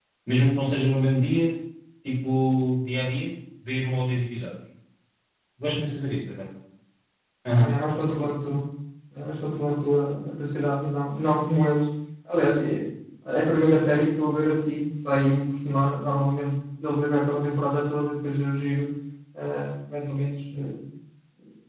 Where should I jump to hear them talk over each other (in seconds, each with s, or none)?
none